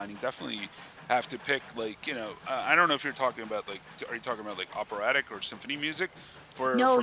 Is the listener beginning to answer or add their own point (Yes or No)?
Yes